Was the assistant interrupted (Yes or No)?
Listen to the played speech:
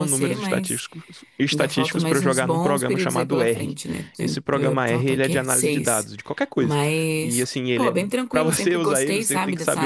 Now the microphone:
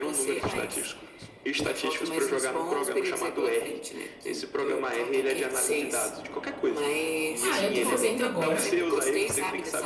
Yes